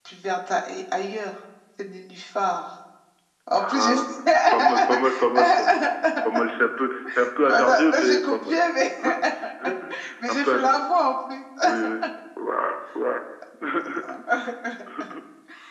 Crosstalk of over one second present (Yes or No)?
Yes